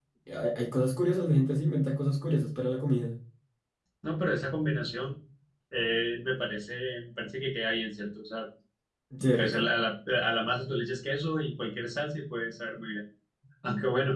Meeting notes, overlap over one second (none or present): none